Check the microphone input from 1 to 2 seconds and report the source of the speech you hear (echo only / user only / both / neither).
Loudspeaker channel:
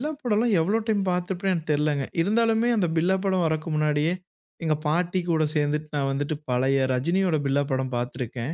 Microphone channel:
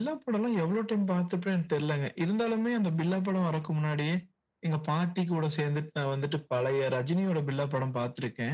echo only